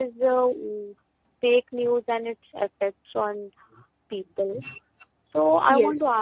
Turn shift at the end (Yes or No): No